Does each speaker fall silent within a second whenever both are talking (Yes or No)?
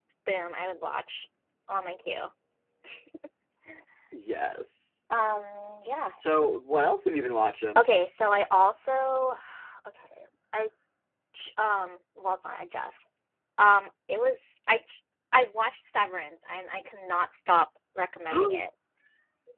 Yes